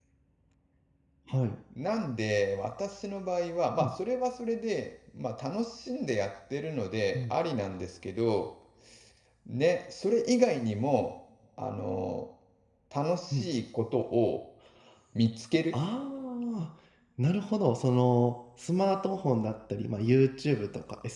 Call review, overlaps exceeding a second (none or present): none